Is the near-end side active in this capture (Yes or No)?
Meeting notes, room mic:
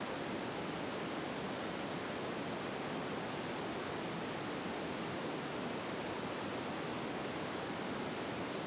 No